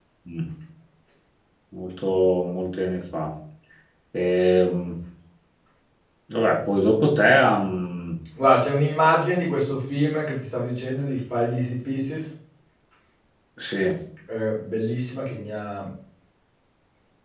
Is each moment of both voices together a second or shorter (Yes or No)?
Yes